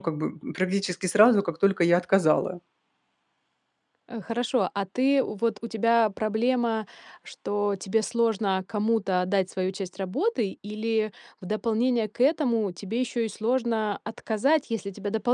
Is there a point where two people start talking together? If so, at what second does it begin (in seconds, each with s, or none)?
none